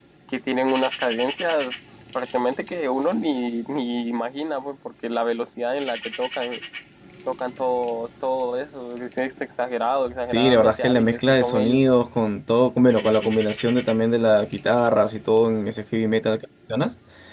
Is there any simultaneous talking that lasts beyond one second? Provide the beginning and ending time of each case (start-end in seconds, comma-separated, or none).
10.2-11.8